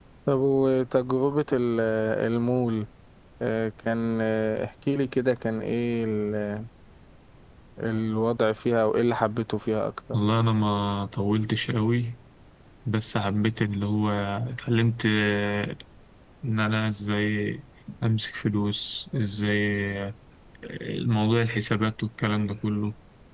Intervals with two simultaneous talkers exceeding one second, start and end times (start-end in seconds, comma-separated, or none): none